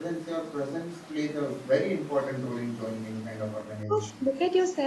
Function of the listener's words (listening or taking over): taking over